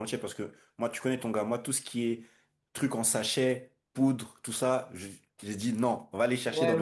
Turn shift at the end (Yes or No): Yes